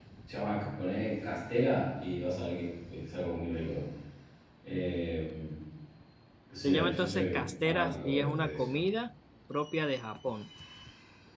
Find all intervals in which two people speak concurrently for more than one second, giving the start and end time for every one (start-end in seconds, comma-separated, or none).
6.6-8.8